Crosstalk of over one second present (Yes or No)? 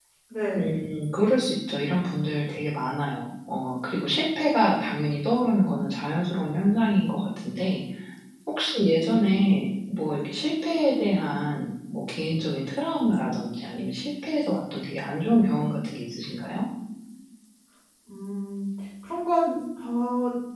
No